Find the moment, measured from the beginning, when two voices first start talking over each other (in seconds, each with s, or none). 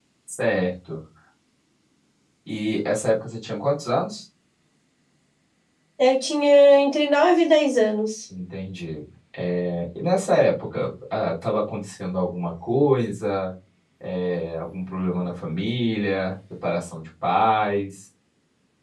none